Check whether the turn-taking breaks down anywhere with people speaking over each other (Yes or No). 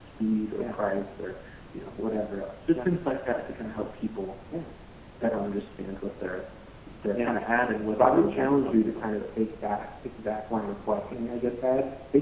Yes